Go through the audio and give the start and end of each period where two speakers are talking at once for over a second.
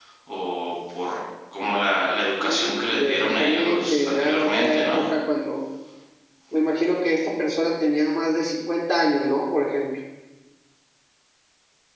2.4-5.0

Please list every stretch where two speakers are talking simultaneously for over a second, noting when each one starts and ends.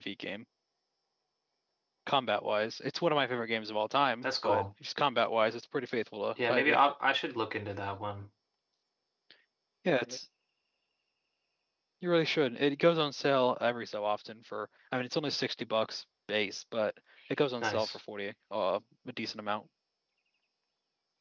none

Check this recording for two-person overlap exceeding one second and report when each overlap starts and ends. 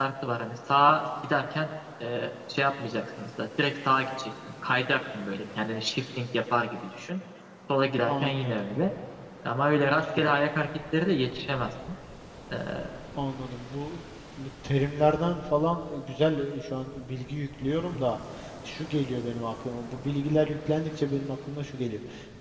none

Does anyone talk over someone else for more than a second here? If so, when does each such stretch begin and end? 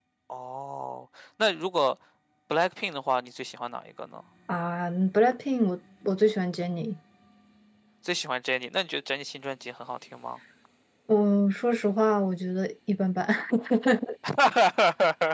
none

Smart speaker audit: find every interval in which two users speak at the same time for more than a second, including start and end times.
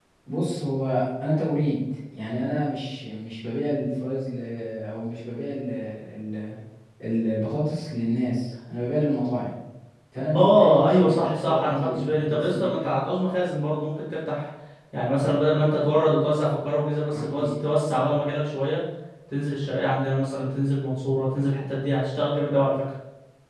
10.3-12.9

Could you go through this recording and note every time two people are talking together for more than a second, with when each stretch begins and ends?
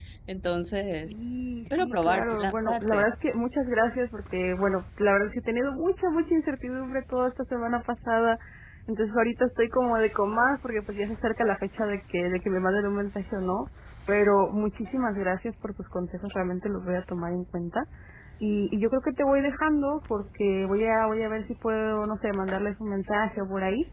1.8-3.0

